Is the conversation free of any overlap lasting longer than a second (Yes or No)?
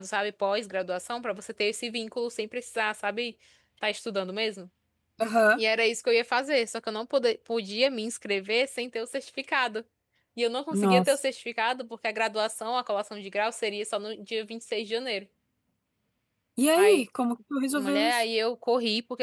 Yes